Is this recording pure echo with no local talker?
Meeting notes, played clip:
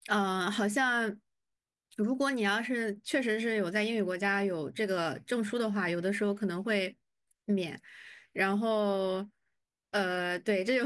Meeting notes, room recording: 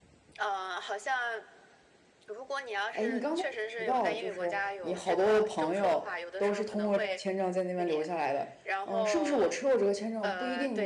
No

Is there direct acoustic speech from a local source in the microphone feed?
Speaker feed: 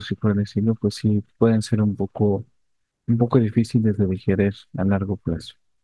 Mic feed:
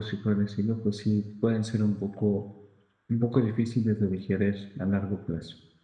No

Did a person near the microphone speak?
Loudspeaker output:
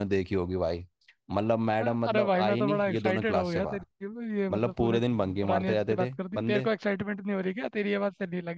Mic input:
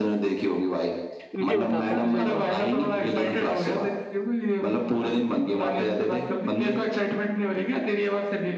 Yes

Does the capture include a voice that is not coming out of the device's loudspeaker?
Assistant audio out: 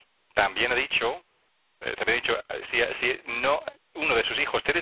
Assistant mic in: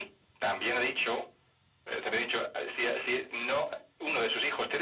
No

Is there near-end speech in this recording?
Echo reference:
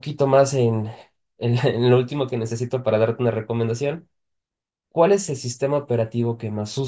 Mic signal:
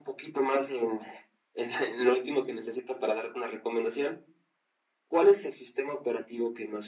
No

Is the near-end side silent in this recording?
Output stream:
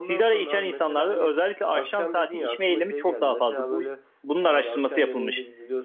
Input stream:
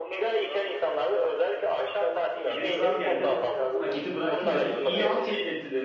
No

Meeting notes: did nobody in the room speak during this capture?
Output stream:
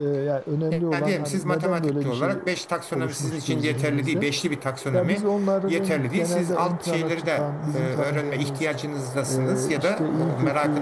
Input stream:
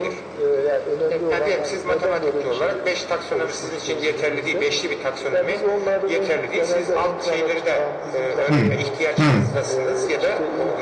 No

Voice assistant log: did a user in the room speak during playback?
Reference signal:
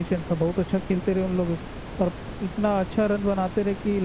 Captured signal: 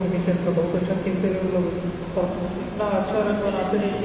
Yes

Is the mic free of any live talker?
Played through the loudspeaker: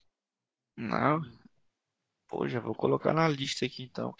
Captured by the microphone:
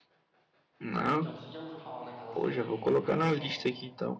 No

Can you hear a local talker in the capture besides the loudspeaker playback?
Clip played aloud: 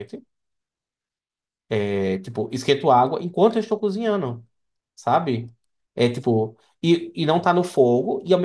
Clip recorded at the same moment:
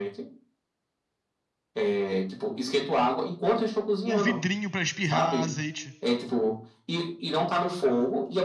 Yes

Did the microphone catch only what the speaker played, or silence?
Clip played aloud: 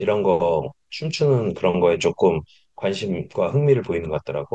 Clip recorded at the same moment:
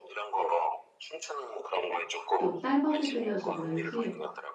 No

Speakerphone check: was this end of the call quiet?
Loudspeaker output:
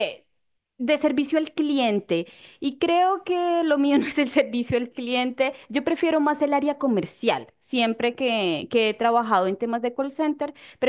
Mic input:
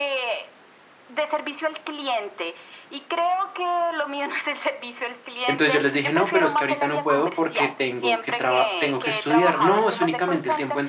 No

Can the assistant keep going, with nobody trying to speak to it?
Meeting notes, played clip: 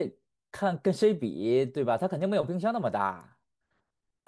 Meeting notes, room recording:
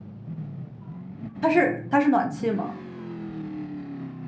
No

